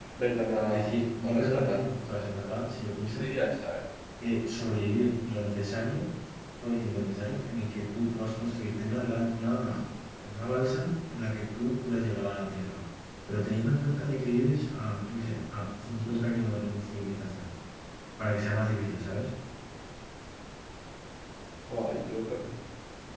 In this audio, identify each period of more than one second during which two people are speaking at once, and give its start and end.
0.6-1.8

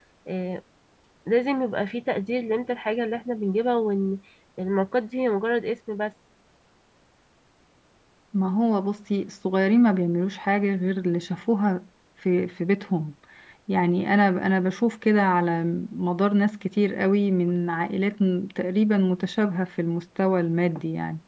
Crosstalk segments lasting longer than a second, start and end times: none

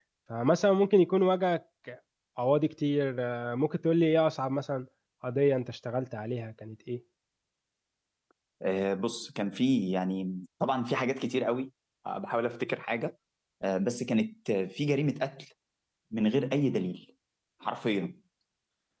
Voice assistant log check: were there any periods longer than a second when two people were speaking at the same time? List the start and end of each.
none

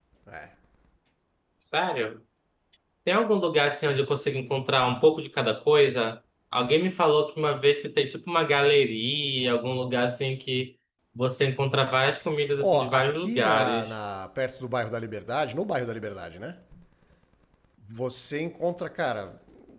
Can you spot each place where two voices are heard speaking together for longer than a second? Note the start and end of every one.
12.6-13.9

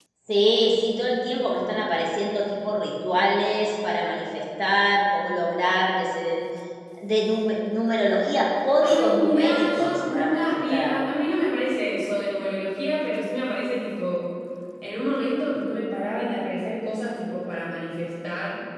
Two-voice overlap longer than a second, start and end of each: 8.8-11.2

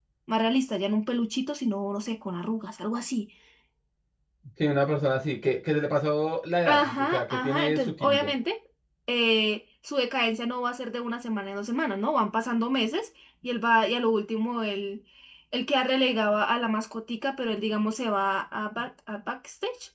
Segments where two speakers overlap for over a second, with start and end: 6.7-8.3

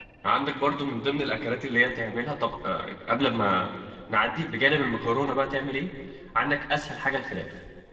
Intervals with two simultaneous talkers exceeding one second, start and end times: none

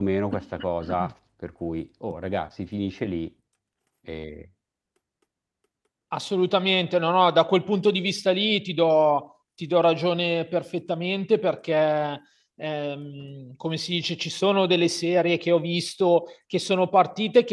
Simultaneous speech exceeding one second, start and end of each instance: none

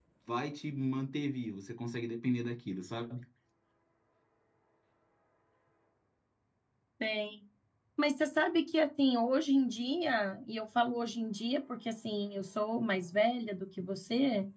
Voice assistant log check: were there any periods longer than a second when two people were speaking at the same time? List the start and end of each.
none

